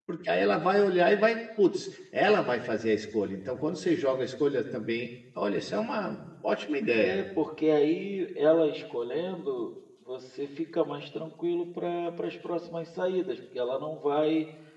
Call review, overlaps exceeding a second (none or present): none